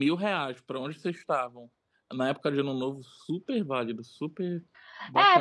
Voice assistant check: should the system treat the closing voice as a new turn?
Yes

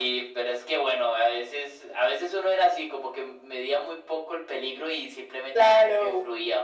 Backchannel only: Yes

